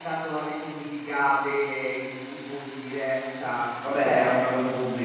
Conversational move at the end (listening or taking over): taking over